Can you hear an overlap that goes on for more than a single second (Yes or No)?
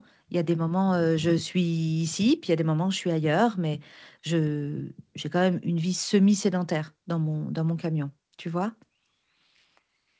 No